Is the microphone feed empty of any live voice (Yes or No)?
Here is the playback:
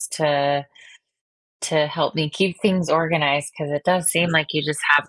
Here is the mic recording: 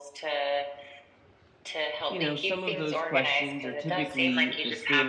No